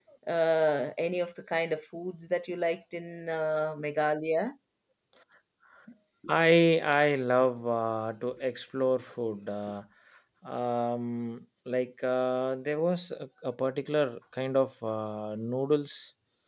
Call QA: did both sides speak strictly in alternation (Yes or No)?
Yes